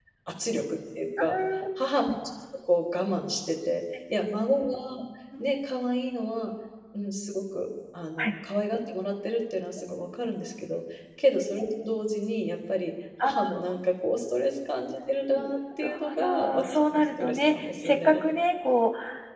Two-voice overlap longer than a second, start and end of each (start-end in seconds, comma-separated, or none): 15.3-18.2